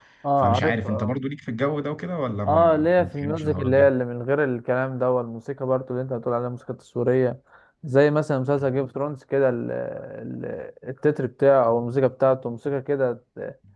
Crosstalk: present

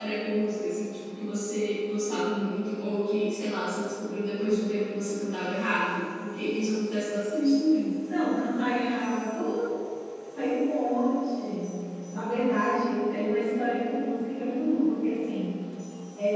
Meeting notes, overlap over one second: none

